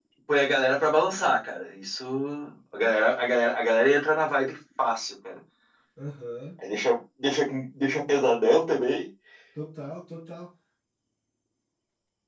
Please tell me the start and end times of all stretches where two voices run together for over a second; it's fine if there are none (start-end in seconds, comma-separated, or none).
none